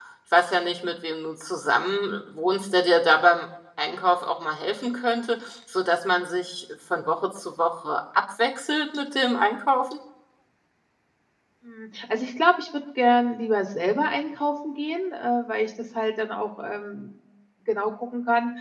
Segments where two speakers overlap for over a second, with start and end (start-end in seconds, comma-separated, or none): none